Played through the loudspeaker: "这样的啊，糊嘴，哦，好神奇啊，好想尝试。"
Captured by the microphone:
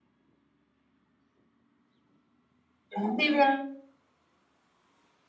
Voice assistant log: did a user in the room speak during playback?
Yes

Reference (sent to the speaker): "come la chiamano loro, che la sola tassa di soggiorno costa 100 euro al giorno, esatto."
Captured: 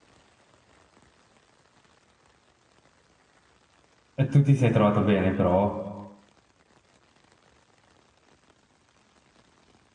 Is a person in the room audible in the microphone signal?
Yes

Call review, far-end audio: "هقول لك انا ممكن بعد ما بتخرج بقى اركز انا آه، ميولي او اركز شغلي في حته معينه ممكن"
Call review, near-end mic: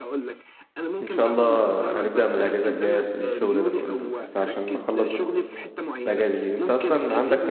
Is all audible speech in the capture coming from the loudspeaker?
No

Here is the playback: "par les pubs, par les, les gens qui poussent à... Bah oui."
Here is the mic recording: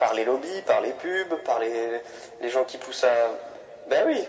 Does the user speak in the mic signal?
No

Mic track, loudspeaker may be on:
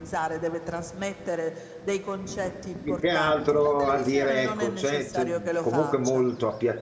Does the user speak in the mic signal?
Yes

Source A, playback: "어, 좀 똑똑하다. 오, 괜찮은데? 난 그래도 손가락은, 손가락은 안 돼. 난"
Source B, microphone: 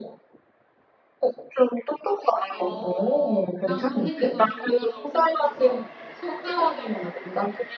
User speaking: Yes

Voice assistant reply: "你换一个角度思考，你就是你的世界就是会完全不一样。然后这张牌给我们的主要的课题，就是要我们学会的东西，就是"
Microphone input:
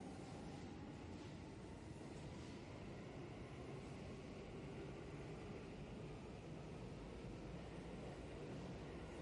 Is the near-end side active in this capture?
No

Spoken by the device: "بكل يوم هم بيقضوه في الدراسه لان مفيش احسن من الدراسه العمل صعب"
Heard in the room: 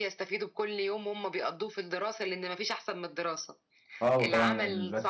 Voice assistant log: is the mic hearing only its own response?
No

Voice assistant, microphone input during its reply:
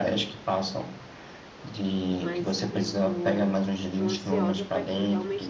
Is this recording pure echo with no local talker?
No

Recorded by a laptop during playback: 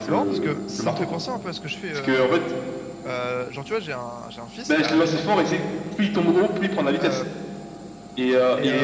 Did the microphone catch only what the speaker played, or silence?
No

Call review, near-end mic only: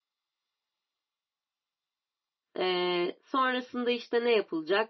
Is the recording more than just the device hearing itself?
Yes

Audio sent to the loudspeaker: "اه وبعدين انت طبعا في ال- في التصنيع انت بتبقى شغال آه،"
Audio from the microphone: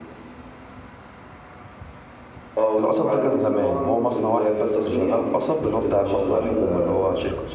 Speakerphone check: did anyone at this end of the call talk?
Yes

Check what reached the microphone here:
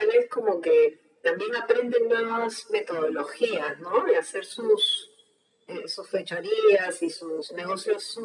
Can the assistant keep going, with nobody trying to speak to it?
Yes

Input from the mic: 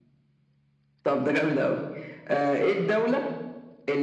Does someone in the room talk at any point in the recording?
No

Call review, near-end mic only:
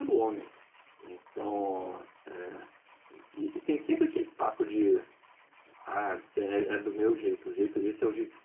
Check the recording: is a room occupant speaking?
Yes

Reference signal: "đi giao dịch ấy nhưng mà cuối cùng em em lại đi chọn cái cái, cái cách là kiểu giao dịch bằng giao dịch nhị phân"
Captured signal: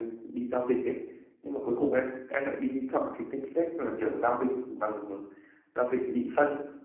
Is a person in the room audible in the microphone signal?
No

